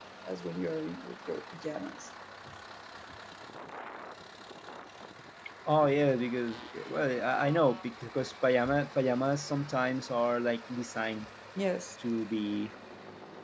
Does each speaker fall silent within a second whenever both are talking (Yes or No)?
Yes